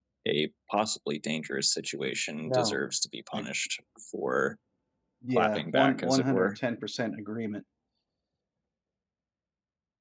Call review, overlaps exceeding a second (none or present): present